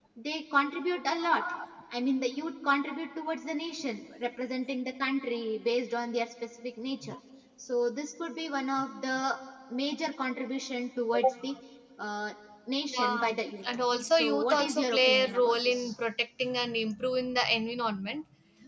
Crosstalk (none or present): present